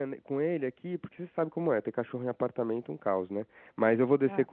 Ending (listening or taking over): listening